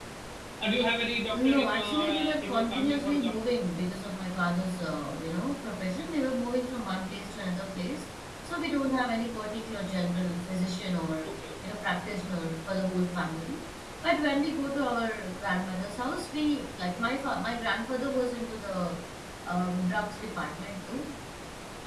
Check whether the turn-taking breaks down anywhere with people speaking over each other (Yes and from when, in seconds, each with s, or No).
Yes, from 1.3 s